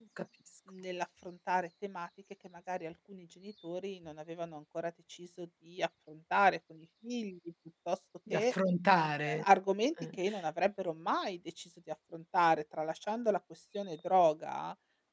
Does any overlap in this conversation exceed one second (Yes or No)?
No